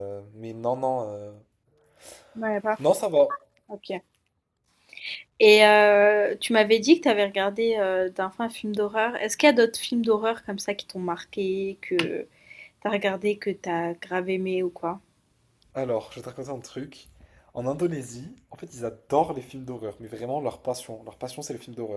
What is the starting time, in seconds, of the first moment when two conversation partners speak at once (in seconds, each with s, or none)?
none